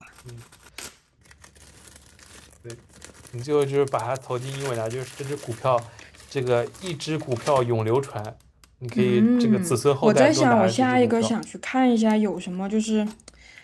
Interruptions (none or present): present